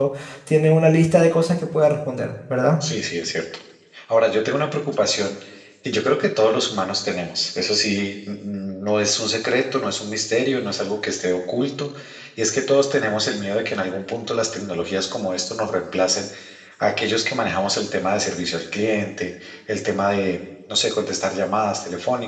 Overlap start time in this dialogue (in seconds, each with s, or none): none